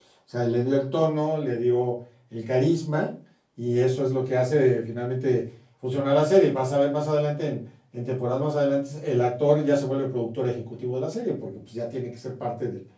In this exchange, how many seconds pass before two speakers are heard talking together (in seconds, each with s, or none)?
none